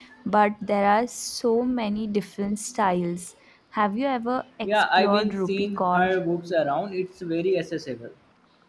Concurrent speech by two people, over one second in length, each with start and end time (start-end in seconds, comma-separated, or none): 4.6-6.1